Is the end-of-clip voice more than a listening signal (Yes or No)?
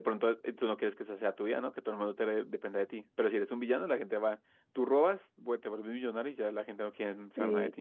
Yes